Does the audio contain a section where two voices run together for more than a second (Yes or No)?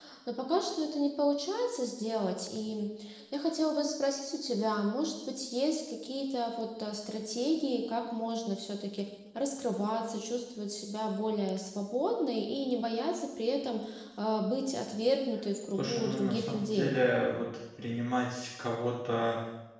Yes